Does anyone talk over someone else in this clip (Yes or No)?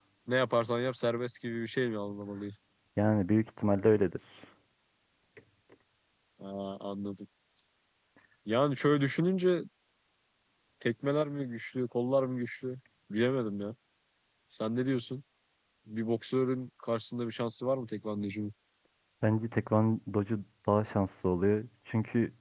No